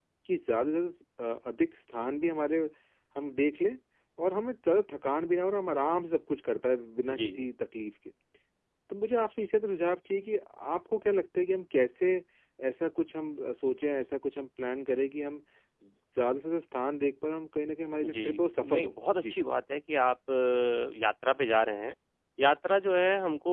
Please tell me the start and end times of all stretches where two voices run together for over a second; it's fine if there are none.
18.0-19.4

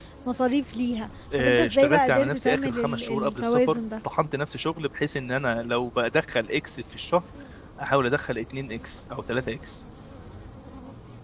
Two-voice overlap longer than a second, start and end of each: 1.4-3.8

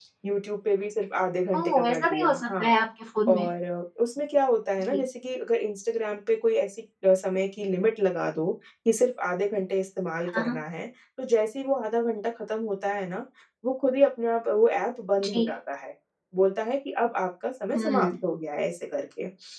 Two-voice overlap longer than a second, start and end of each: 1.6-2.8

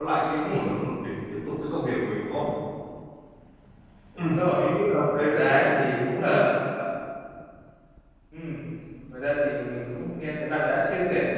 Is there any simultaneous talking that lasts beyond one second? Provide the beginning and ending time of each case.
5.1-6.4

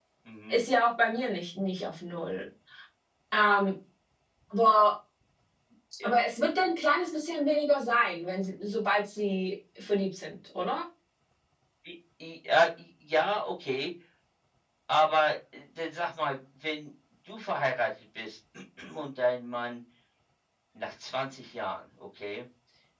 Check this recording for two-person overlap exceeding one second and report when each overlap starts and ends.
none

